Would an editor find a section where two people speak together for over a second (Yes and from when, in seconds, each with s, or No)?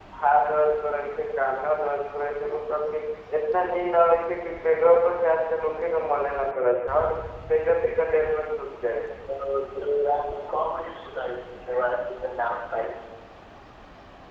No